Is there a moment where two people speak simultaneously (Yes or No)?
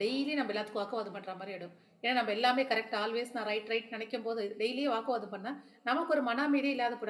No